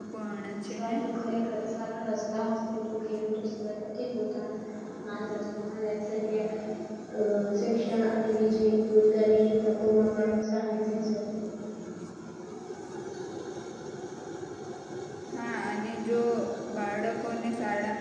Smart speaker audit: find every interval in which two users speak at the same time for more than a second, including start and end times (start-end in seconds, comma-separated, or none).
none